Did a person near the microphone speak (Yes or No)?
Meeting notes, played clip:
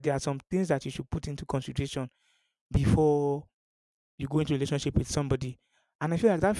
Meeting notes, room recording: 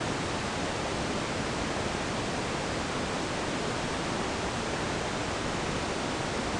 No